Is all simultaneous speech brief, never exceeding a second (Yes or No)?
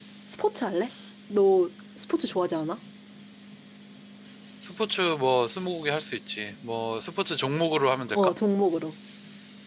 Yes